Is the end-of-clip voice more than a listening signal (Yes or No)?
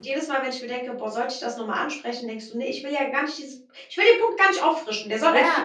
Yes